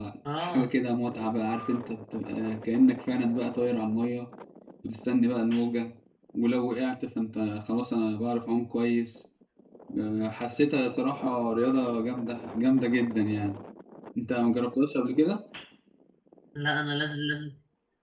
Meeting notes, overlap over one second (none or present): none